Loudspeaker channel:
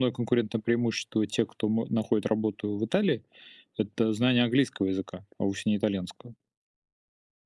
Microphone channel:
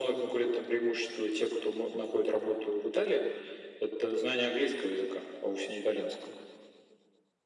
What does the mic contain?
echo only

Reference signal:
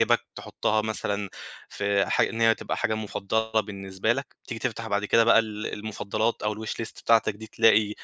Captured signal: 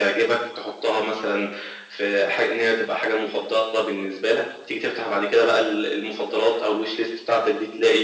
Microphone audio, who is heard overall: echo only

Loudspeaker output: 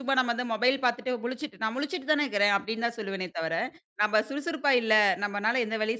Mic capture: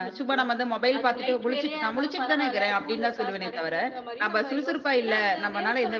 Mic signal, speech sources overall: both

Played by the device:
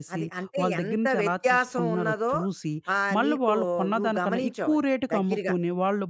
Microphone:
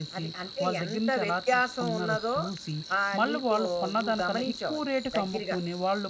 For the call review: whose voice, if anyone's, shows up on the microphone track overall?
echo only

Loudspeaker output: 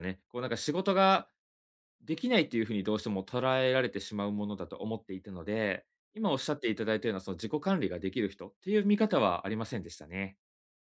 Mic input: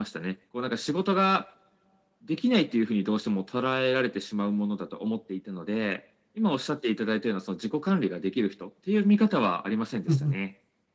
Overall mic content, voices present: both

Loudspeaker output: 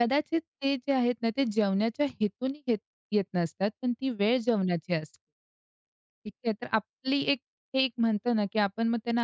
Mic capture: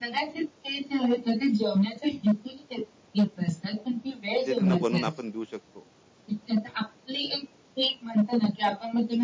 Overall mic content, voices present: both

